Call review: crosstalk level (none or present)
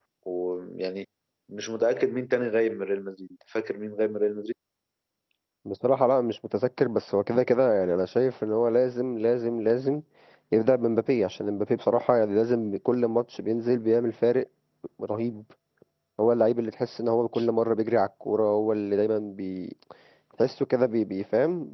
none